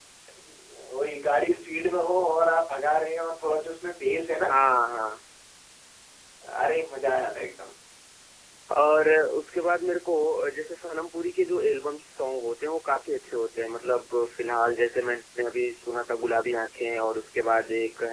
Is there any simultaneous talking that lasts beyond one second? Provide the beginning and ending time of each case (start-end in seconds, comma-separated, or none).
none